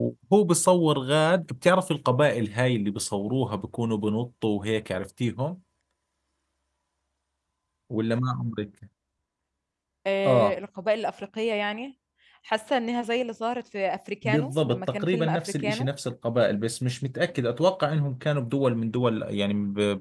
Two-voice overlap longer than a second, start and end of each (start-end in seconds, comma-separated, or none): 14.2-15.9